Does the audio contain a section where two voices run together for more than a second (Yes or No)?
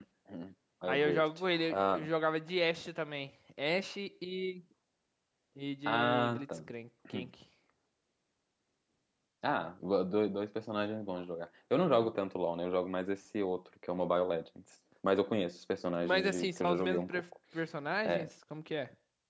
Yes